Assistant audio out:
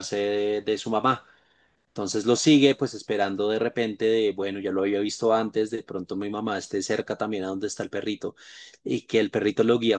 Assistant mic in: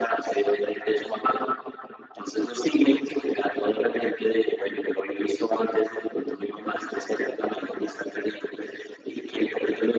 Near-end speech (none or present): none